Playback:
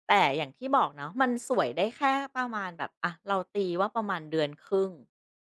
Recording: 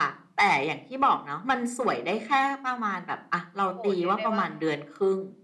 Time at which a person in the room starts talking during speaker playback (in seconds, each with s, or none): 3.6 s